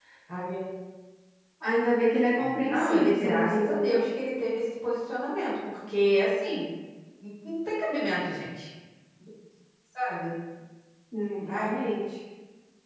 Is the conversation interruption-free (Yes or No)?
No